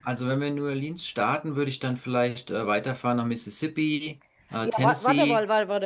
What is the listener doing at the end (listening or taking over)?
taking over